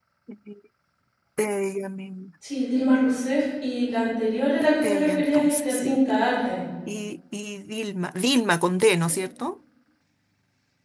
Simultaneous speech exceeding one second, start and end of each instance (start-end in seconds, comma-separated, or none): 4.8-6.2